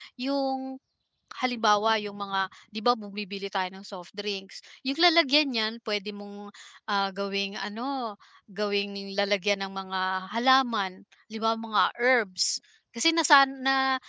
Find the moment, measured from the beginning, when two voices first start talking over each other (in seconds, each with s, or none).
none